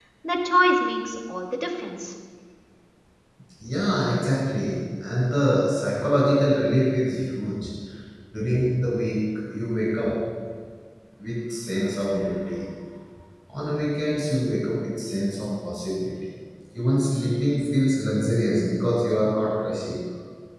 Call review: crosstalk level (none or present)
none